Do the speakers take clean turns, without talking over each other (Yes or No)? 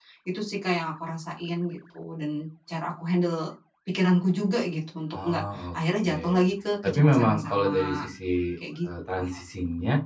No